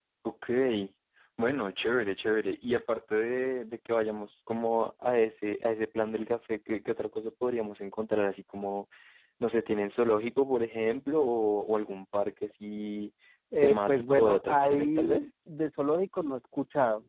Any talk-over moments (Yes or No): Yes